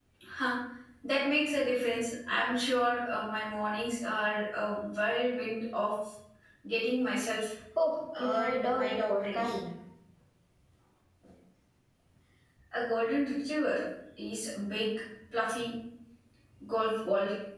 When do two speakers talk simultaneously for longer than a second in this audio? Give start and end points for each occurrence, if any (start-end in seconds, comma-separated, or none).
8.1-9.4